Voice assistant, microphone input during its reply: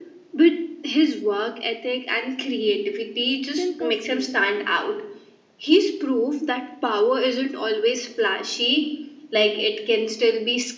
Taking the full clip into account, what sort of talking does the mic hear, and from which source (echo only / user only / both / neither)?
both